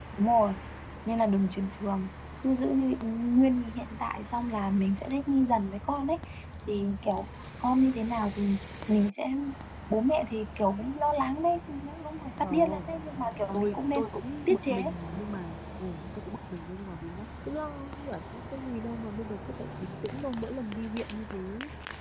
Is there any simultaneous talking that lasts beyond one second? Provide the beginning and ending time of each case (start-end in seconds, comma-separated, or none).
none